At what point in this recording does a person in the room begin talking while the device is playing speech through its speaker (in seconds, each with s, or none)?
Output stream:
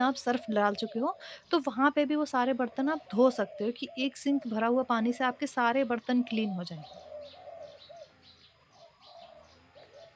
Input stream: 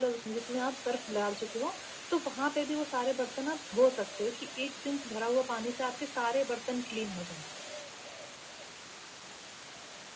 none